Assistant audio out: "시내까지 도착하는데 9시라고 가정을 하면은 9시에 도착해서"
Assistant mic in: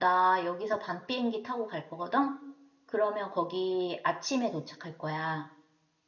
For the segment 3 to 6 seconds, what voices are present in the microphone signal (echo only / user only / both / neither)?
user only